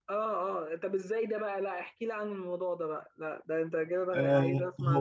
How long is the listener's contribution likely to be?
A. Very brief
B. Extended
B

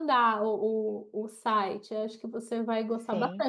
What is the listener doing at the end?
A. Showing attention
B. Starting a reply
A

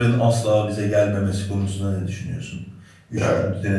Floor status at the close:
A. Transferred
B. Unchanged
B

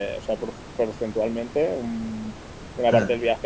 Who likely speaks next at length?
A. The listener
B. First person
B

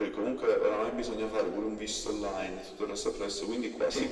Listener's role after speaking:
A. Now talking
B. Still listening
B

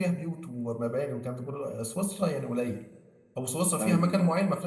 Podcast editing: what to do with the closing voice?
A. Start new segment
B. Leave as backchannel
B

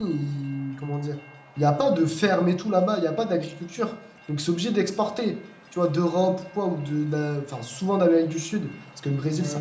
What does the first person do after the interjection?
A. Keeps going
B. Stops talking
A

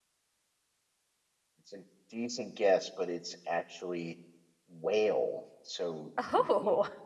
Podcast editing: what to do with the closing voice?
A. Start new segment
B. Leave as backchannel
B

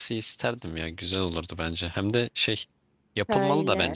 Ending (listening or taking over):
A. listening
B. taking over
A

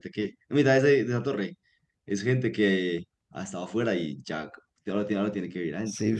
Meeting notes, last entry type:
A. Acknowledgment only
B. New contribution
B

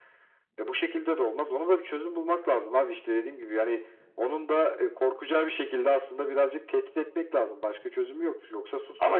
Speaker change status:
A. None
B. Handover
B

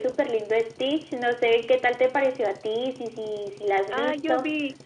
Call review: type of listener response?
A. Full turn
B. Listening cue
A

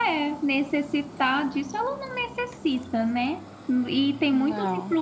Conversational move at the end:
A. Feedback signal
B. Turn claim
A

